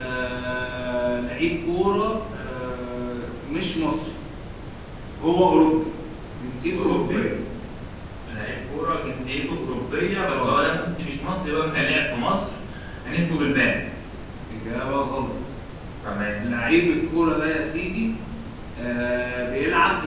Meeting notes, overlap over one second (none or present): none